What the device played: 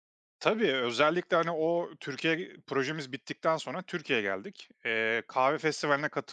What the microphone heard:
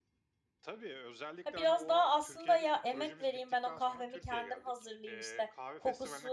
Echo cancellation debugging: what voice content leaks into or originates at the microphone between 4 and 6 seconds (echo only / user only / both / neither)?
both